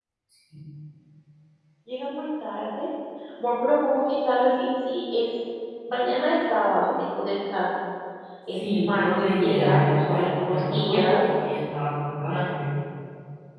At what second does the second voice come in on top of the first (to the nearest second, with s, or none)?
9 s